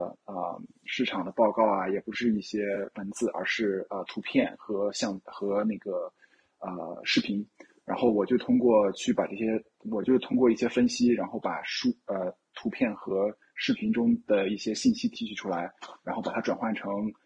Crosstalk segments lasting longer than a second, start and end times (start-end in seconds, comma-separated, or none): none